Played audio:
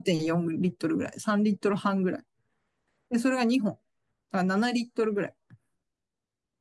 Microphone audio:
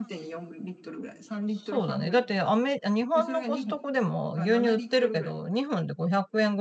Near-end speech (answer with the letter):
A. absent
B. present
B